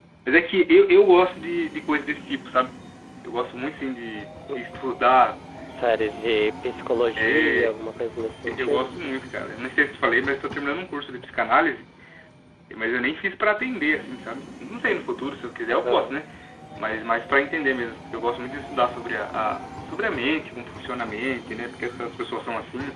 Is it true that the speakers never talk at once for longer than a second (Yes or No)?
Yes